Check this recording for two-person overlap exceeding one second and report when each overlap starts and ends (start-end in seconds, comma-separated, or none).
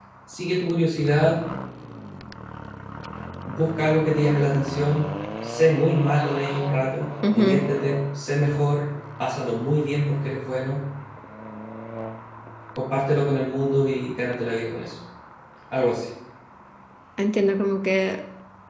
none